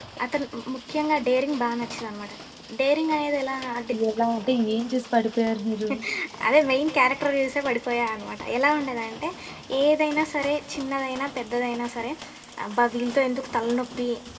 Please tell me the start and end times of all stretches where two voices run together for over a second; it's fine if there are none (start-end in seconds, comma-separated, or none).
none